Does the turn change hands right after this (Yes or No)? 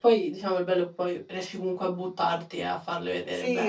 Yes